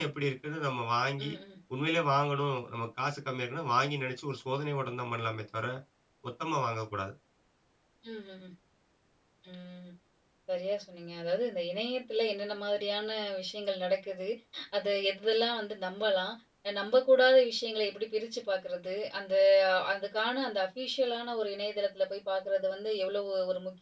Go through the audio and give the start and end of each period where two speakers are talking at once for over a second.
none

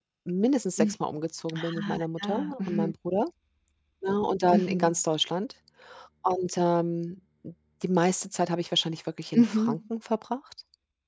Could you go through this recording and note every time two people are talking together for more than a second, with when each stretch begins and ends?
1.5-2.9

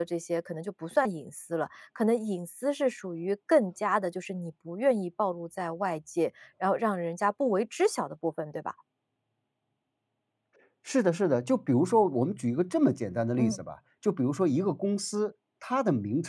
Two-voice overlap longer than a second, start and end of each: none

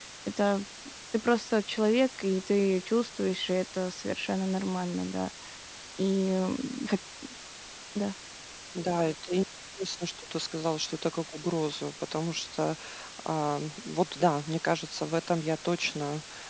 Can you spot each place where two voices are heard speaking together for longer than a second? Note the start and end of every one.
none

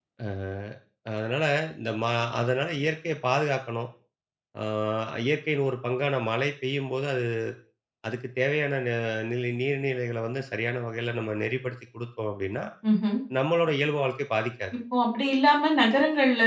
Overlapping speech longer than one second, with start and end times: none

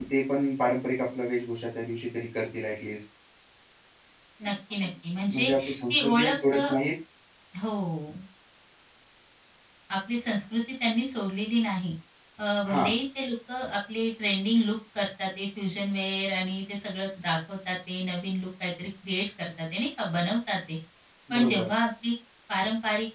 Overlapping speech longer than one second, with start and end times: 5.3-6.6

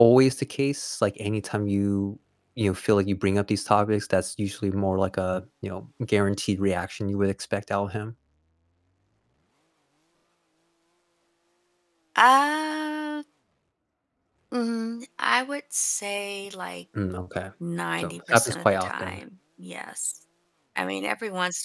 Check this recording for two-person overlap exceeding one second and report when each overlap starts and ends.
18.0-19.2

